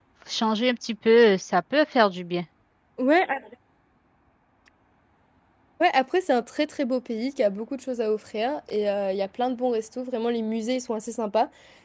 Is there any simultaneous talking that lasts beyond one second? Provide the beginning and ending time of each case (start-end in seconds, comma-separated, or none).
none